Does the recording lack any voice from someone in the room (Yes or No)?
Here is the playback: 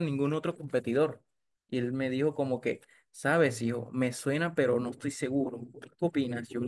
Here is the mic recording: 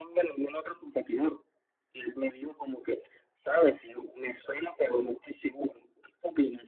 Yes